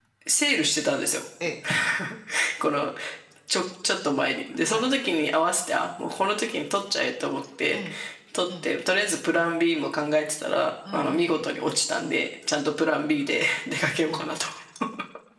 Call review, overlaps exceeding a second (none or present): none